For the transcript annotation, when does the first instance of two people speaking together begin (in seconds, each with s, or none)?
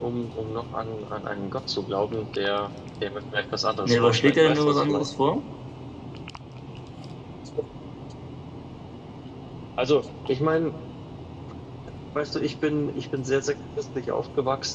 3.8 s